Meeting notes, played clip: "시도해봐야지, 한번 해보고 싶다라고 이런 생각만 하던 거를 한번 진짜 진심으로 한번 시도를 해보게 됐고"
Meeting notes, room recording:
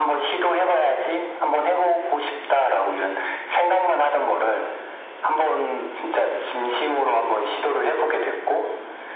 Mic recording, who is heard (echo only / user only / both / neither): echo only